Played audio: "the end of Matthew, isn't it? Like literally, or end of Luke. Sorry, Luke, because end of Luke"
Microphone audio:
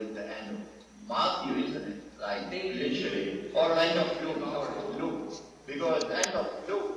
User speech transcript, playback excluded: they knew that the ending of the gospel

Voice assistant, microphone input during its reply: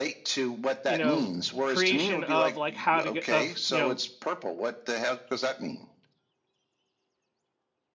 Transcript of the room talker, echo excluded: you know creation of like how to get of you know

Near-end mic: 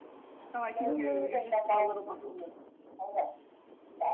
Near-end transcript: Oh, I can hear you. You're just a little muffled.

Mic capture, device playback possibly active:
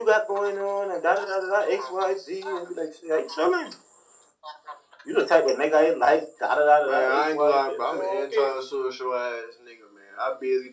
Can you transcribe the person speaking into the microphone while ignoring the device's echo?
none

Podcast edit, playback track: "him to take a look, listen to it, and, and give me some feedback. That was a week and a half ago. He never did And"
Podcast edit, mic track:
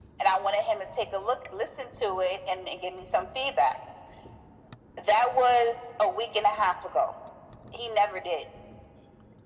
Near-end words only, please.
none

